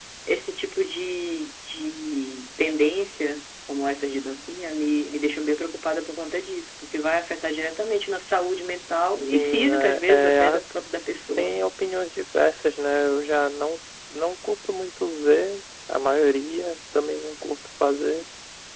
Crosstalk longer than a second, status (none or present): present